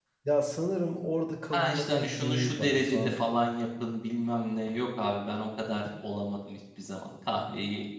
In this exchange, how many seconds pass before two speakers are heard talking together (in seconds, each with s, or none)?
1.5 s